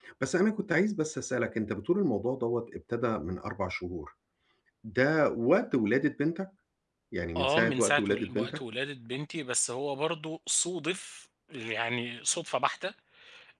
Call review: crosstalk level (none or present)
present